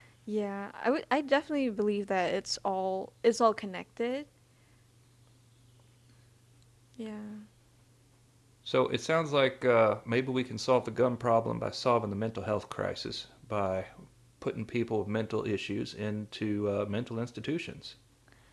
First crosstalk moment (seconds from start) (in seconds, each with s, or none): none